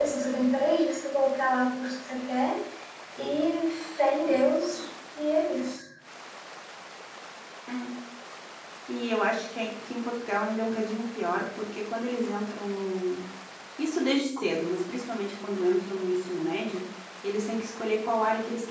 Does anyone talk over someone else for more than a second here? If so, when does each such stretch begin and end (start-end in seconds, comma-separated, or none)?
none